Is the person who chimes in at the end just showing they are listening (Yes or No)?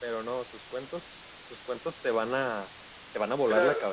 No